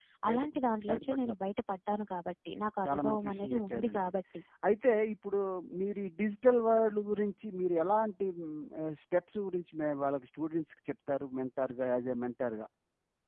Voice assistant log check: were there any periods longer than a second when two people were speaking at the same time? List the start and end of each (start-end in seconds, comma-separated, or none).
2.8-4.1